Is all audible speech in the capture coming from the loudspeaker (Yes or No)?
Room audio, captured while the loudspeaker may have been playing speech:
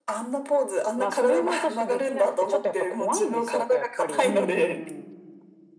No